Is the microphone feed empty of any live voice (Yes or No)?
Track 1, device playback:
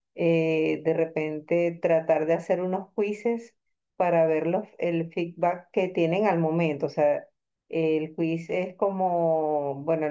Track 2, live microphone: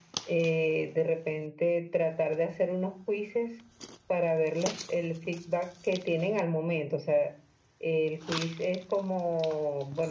Yes